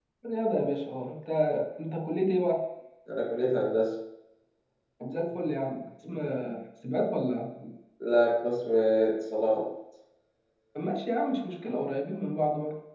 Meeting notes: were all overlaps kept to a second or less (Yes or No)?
Yes